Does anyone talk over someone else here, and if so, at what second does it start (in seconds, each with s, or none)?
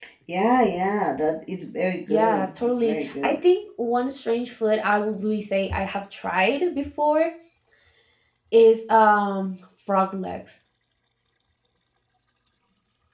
2.1 s